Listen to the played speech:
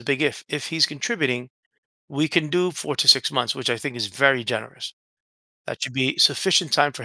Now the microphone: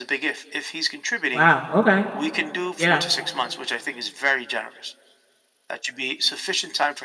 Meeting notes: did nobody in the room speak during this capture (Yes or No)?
No